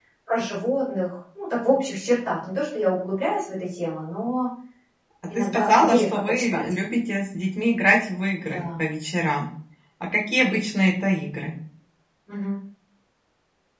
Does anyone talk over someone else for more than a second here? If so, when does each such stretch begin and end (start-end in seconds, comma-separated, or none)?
5.3-6.7